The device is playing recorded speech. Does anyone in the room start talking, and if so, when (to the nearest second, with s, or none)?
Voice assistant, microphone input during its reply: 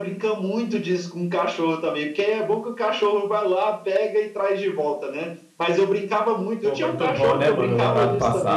7 s